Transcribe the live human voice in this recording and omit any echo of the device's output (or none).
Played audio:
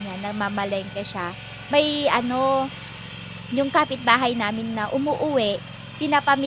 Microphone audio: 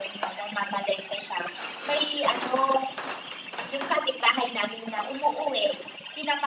none